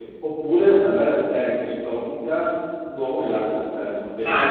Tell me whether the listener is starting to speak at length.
Yes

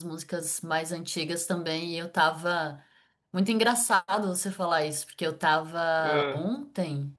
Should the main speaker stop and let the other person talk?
No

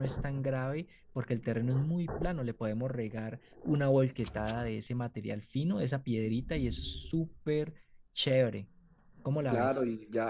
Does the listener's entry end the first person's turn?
Yes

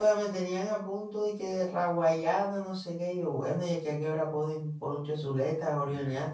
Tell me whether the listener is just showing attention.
No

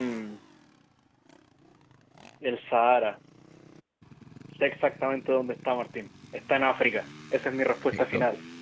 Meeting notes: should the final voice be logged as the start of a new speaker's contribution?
Yes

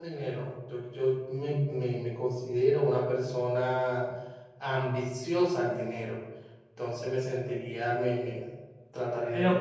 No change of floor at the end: No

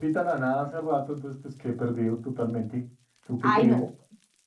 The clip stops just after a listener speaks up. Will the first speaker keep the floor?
No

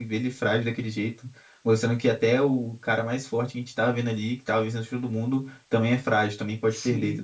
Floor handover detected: Yes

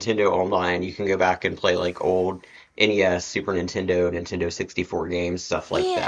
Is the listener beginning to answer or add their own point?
Yes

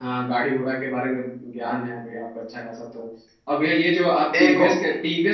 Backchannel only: Yes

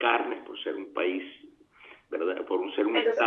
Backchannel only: Yes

